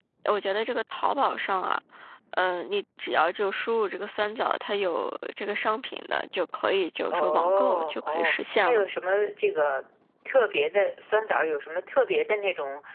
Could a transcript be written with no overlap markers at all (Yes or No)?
No